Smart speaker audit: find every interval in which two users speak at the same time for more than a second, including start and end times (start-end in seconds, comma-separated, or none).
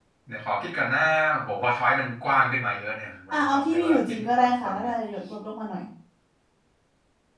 3.3-4.9